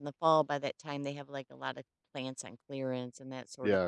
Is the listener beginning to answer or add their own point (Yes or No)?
Yes